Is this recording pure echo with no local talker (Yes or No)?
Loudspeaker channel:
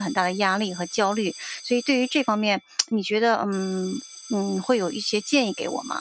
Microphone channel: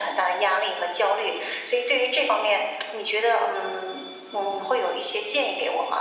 Yes